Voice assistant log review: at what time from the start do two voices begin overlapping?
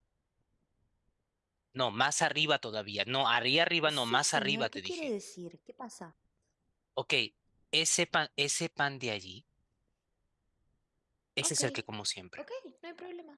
3.9 s

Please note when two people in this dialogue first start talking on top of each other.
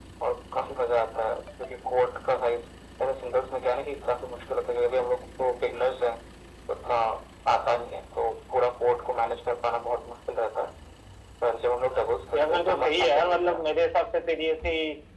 12.3 s

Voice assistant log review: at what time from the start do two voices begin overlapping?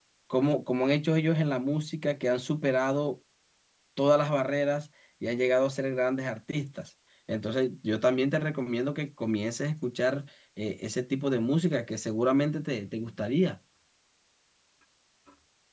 none

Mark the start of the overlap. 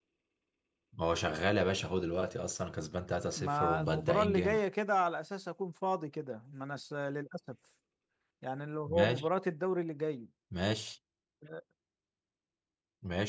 3.4 s

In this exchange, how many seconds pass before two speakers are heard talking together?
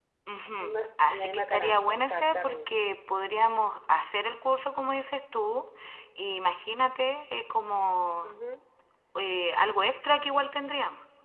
0.6 s

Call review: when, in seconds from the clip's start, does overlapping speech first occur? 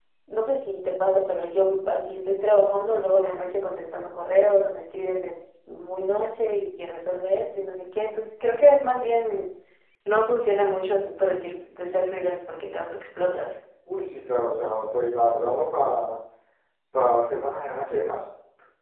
none

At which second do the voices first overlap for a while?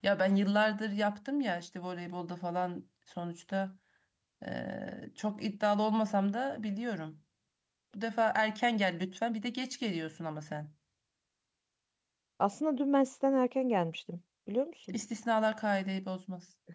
none

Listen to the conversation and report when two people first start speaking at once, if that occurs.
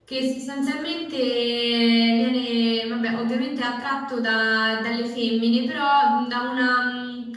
none

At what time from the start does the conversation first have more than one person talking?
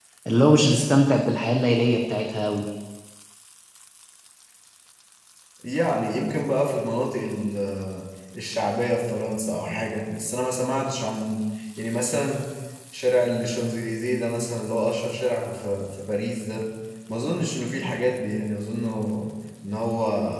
none

